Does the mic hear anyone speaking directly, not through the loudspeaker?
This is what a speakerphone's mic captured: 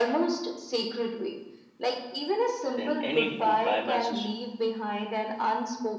Yes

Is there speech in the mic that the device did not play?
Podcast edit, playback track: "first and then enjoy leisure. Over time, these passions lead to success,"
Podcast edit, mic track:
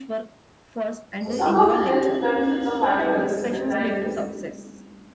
Yes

